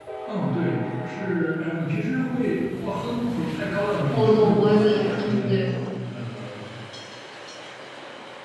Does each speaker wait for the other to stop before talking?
No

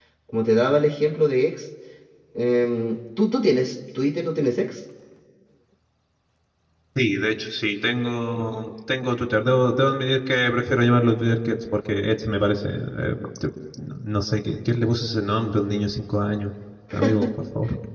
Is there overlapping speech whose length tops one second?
No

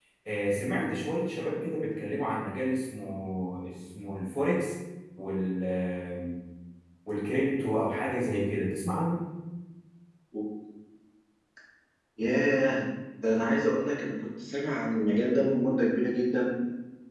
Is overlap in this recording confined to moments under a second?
Yes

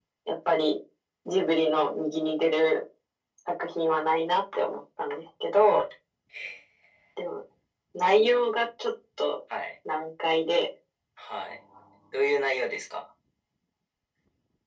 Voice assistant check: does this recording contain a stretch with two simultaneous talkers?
No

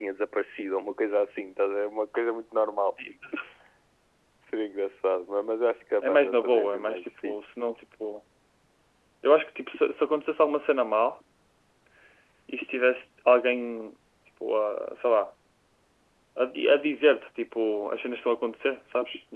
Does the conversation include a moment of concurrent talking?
Yes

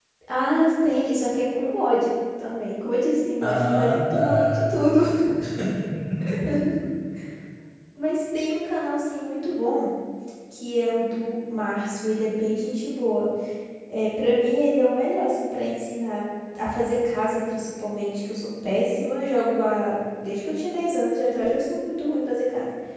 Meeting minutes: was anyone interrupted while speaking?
Yes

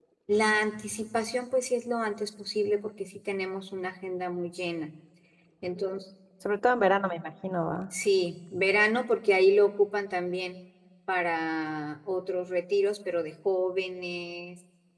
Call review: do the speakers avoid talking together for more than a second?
Yes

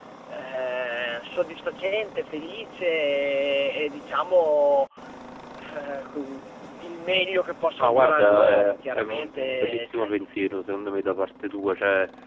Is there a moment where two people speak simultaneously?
Yes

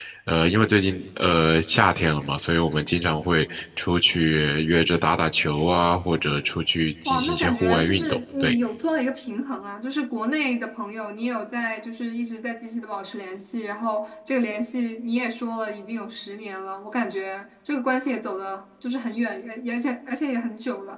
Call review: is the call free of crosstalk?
No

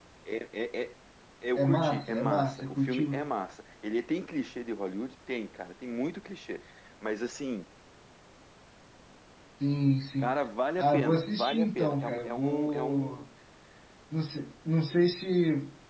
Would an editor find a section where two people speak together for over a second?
Yes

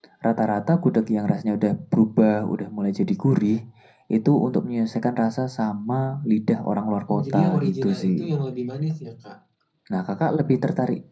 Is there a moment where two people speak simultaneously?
Yes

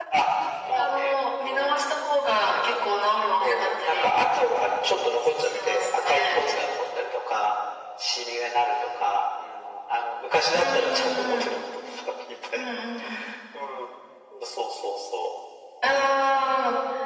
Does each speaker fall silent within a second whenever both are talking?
No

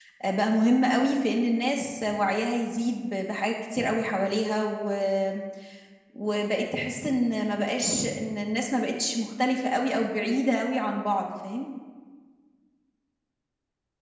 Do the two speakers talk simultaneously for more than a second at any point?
No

